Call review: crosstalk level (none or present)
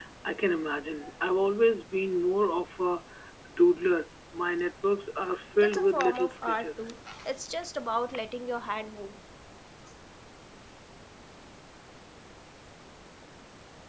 present